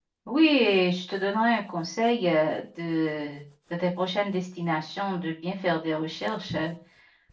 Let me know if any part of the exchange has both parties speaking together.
No

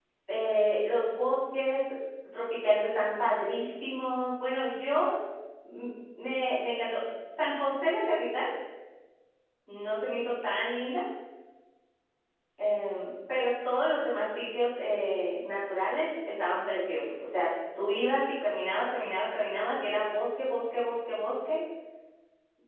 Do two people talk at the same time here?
No

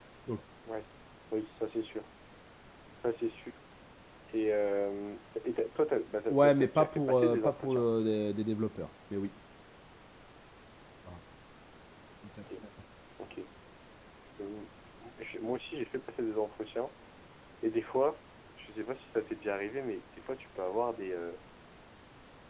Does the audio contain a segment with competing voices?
Yes, from 6.3 s

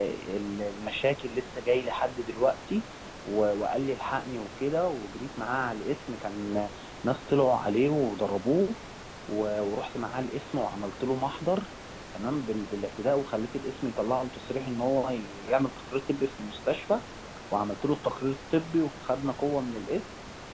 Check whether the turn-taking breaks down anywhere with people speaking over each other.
No

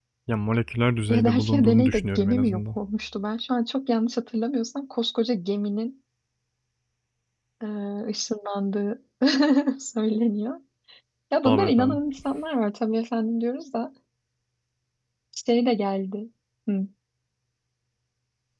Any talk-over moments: Yes, from 1.1 s

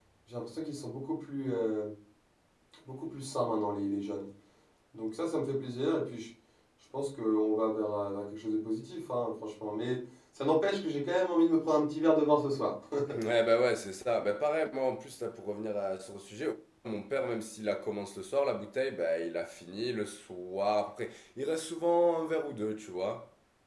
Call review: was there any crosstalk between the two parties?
No

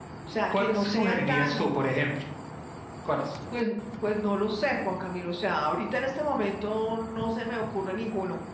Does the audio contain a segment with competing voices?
Yes, from 0.6 s

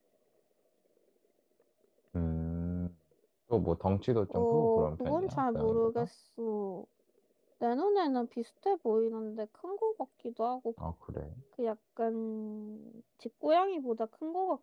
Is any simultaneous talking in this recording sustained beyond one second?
Yes, from 4.3 s

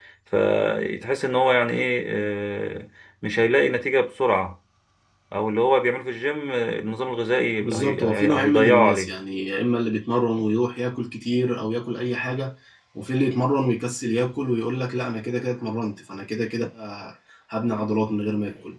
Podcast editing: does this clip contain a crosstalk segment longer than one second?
Yes, from 7.6 s

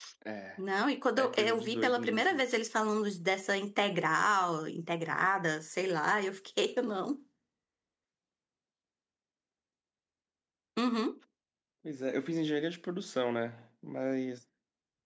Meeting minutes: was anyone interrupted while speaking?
Yes, from 1.2 s

